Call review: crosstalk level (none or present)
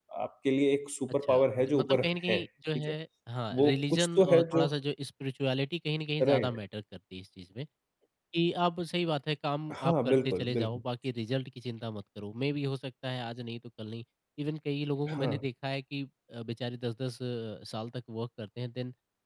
present